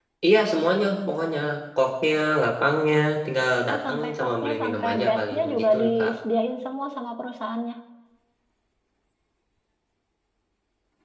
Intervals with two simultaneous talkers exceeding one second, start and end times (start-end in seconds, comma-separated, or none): 3.7-6.1